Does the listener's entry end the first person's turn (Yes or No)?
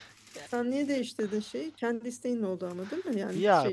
Yes